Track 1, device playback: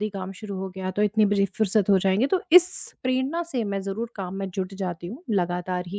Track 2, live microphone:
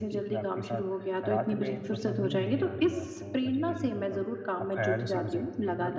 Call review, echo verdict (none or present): present